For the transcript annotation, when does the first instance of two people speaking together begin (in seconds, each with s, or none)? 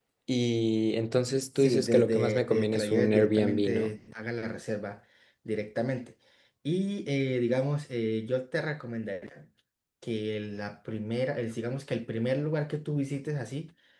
1.6 s